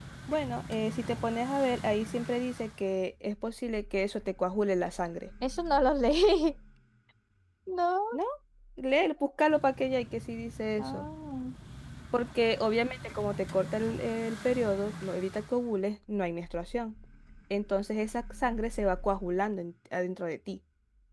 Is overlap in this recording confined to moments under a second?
Yes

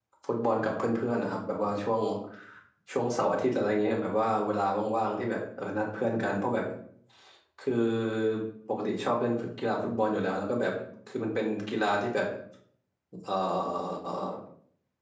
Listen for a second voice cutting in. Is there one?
No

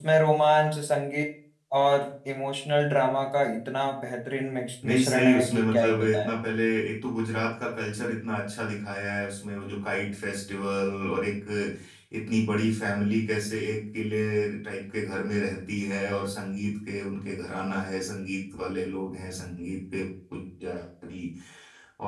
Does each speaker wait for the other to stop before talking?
No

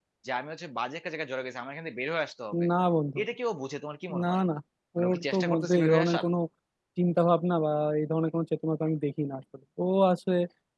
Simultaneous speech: Yes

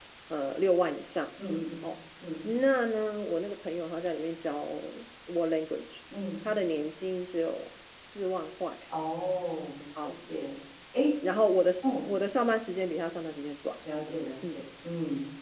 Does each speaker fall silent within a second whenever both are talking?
Yes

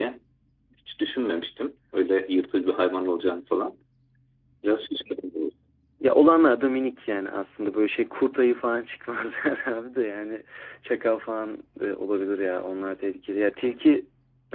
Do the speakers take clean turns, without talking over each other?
Yes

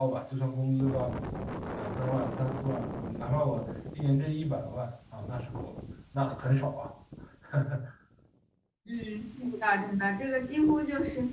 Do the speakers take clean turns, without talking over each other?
Yes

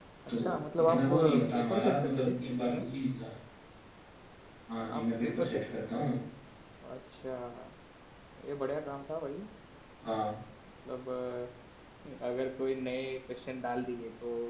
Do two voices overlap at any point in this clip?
Yes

